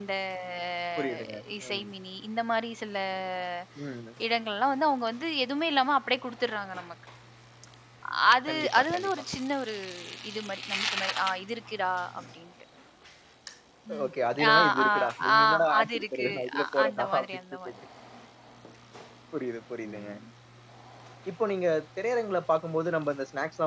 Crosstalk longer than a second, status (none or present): present